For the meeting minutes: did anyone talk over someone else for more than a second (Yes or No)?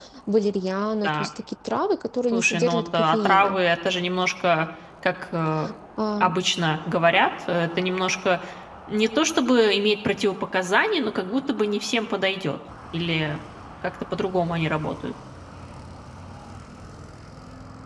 Yes